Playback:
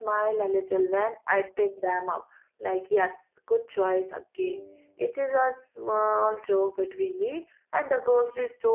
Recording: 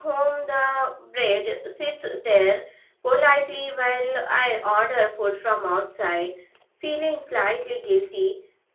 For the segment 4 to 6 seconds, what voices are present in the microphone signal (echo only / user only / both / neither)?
user only